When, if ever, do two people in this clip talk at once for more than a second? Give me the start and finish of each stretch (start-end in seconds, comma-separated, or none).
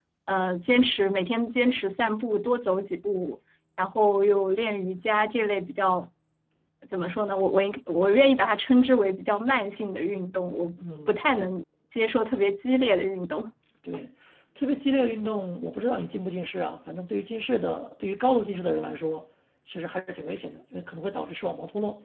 none